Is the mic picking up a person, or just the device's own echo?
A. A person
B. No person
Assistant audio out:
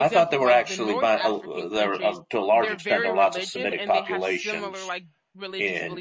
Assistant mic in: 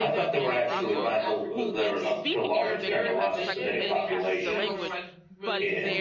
A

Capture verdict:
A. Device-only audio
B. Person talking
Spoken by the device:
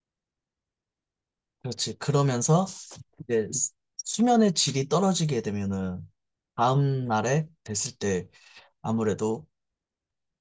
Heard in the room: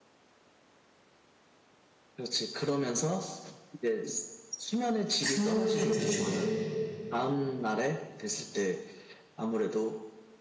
B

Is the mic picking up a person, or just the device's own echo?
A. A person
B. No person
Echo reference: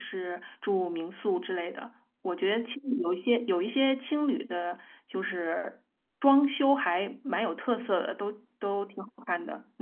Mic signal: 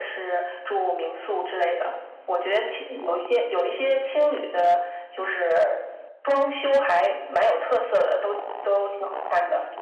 B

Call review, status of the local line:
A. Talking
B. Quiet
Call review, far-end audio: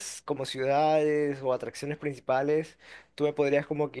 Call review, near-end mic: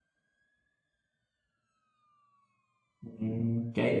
A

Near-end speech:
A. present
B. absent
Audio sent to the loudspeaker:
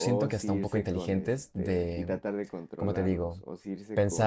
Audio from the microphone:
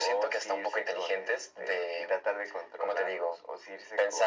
B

